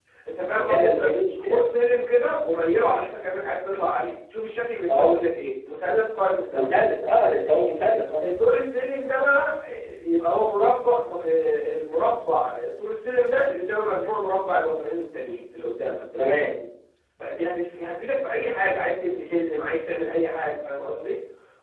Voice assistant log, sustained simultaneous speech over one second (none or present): none